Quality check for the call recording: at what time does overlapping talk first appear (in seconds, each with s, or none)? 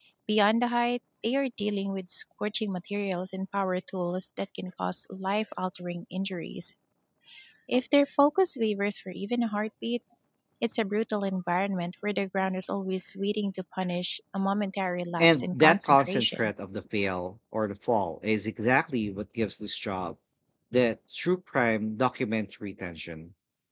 15.2 s